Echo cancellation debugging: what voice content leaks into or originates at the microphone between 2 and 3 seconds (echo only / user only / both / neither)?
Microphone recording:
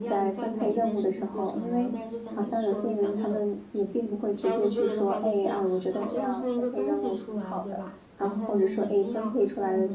both